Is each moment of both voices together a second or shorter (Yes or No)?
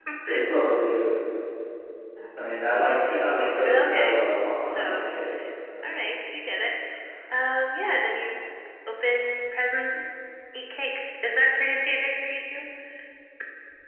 Yes